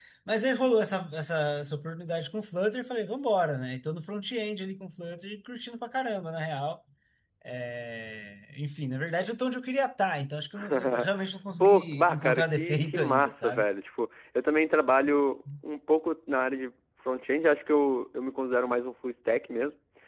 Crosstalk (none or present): present